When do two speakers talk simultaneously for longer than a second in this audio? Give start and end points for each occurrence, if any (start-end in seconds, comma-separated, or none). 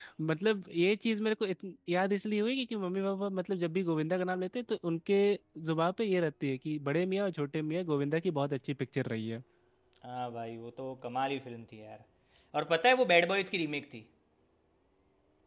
none